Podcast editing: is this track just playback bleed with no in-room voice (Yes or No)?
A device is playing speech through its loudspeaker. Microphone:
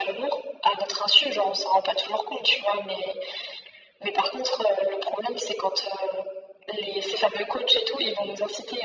Yes